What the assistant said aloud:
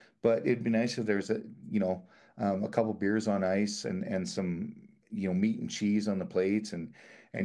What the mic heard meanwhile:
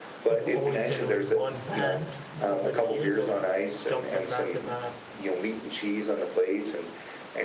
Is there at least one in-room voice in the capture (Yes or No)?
Yes